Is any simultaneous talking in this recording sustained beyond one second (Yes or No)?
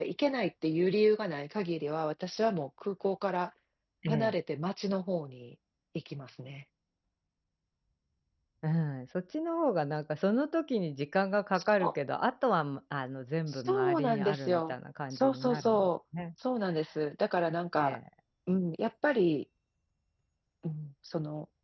Yes